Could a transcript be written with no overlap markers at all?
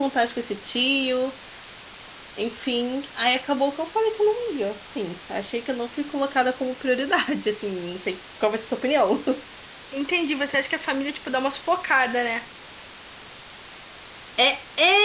Yes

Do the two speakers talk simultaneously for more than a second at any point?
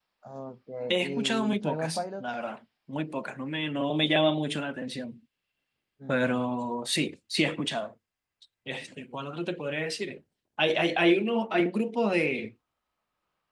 Yes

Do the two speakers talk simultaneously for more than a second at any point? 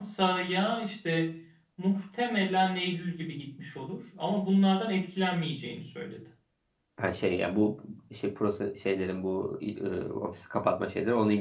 No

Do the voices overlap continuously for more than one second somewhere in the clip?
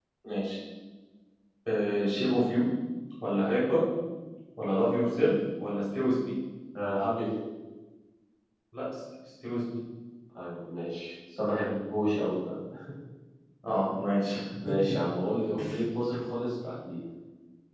No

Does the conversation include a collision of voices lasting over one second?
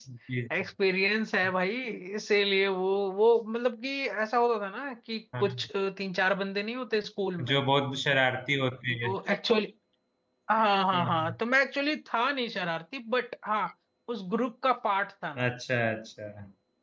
No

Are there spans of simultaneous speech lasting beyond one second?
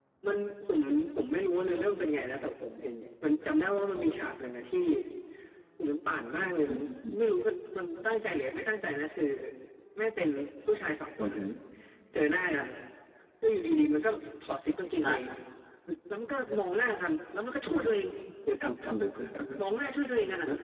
No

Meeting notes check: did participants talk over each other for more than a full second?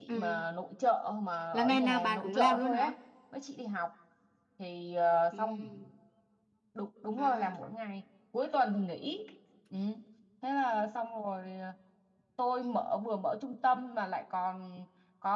Yes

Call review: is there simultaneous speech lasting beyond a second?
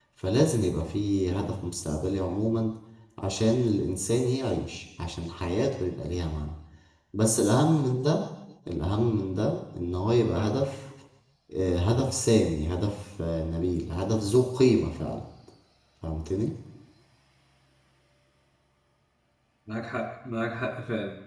No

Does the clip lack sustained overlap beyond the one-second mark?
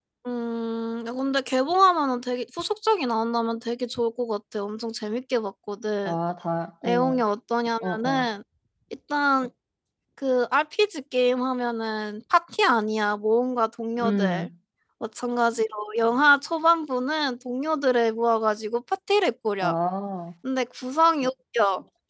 Yes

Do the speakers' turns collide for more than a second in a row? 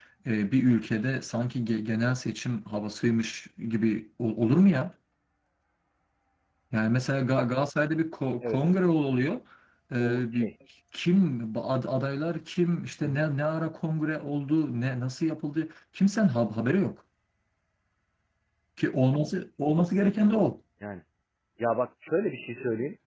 No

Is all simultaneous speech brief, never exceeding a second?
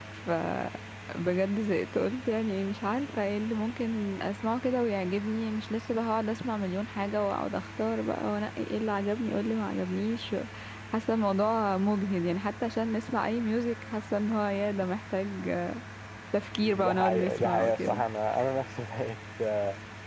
No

